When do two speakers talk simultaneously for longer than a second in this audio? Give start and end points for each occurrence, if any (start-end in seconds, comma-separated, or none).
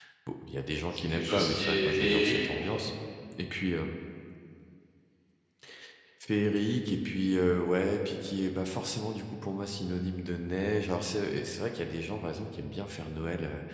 0.9-2.8